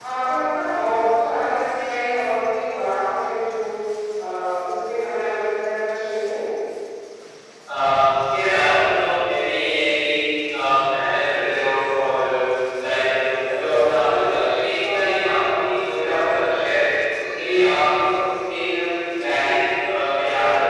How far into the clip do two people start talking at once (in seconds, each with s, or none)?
none